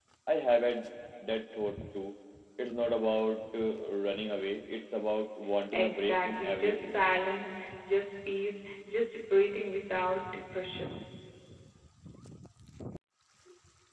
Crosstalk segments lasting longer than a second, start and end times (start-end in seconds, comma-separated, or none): 5.7-7.0